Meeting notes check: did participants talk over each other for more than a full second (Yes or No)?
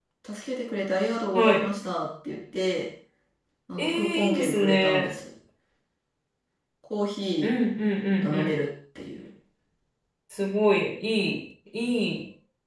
Yes